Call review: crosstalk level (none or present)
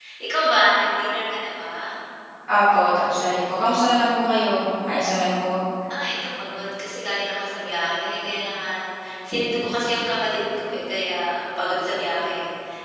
none